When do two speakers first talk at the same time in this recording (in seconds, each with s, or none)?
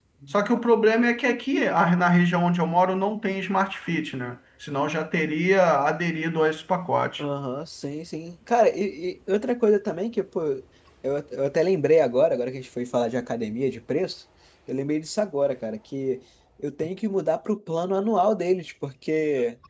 none